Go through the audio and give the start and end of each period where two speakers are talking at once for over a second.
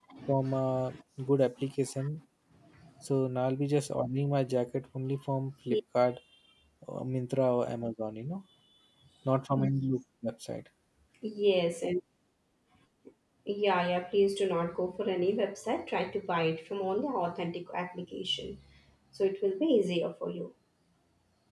none

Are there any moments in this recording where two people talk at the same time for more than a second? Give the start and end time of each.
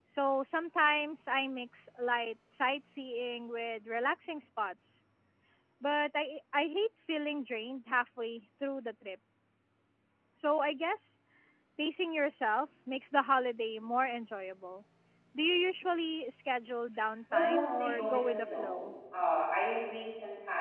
17.3-18.9

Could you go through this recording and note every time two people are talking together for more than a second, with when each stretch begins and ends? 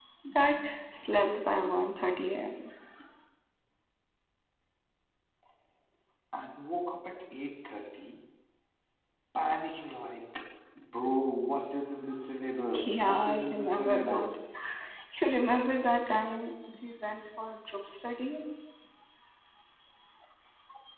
12.8-14.4

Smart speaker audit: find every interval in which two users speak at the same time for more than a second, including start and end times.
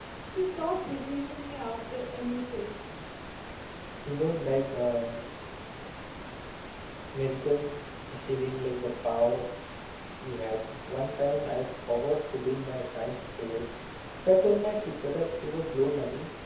none

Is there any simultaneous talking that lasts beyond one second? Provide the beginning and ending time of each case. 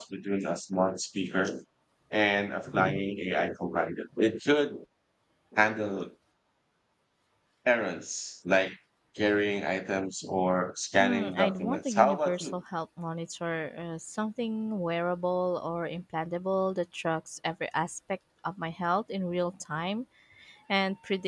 11.0-12.6

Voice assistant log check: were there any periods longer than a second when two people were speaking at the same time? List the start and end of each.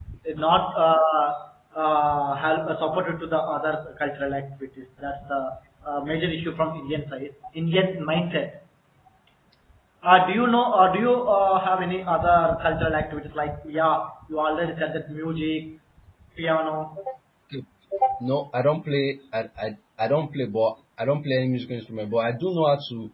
none

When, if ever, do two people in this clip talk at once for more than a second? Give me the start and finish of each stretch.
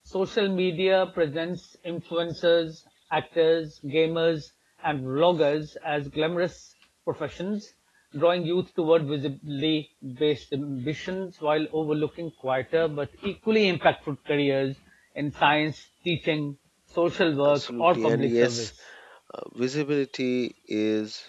17.4-18.7

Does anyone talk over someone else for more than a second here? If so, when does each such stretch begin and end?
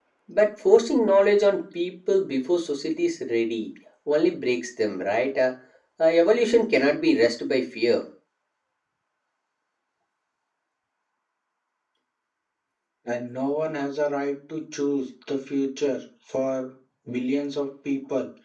none

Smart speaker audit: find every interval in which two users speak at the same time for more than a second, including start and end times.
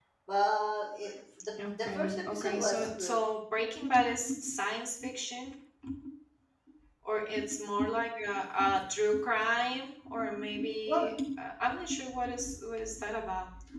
1.6-3.2

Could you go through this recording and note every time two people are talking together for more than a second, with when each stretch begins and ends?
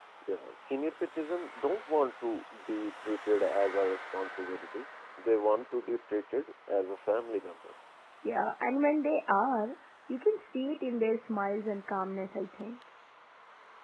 none

